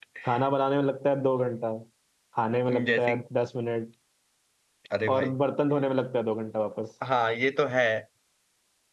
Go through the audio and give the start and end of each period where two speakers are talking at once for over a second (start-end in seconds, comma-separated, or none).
none